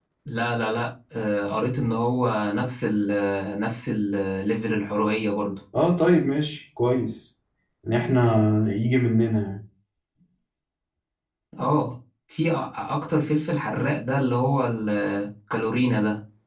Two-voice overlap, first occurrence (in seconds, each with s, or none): none